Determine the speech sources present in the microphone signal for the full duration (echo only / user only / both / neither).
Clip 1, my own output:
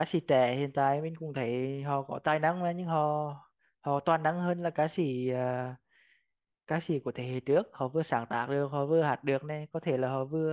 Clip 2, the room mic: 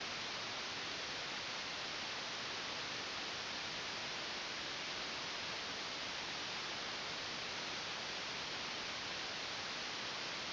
neither